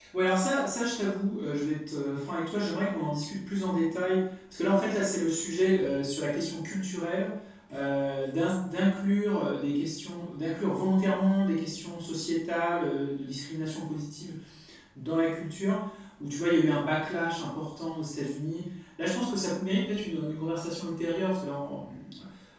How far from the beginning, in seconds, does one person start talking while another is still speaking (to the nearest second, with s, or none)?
none